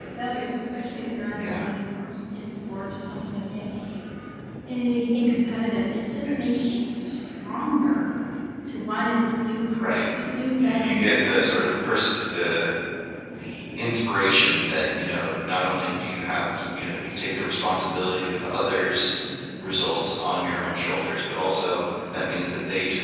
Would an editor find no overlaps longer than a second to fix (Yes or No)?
No